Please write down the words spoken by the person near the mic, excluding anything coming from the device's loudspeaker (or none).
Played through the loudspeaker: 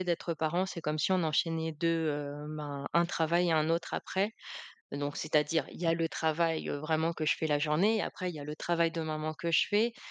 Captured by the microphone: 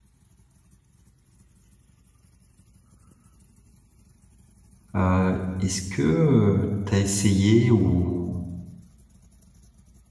Heu, est-ce que, heu, tu as essayé ou